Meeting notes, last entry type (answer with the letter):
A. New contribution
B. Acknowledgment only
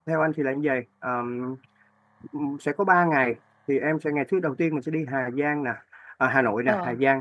B